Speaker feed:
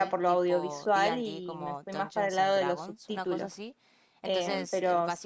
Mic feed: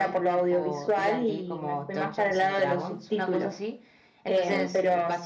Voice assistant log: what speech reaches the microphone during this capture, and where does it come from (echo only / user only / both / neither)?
echo only